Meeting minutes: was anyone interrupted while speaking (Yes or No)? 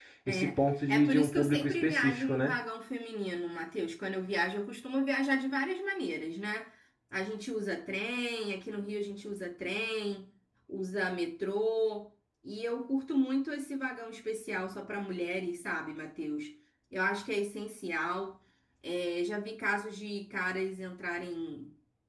Yes